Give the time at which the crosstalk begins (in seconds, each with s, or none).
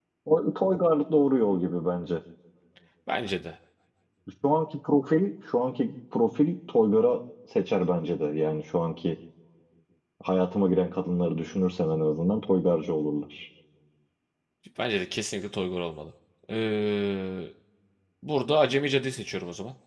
none